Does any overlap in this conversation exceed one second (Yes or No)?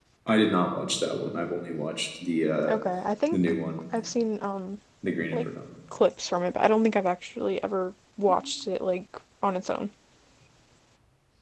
No